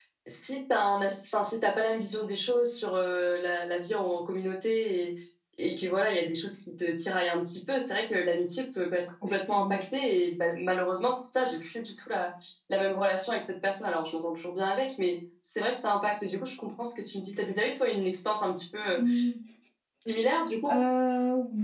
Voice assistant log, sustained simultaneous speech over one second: none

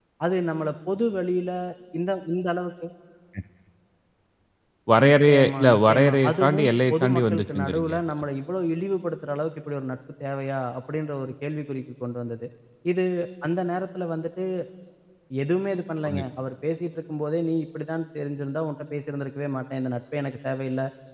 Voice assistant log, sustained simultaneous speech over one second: present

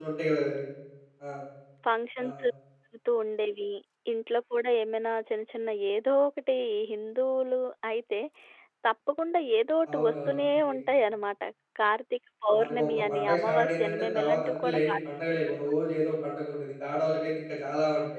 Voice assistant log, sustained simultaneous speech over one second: present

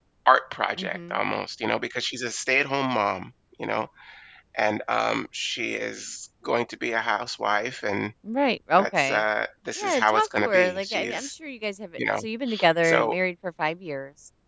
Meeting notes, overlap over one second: present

